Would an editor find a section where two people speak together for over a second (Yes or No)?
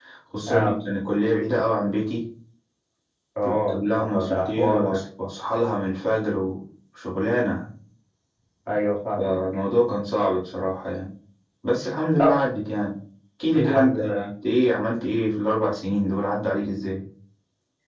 Yes